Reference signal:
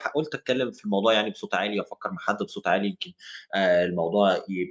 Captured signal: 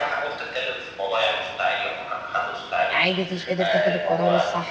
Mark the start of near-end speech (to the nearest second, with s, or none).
3 s